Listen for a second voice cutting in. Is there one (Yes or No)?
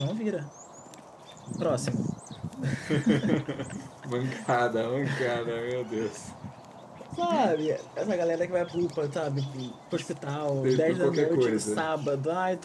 Yes